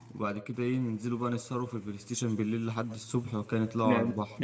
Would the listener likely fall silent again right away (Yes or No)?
No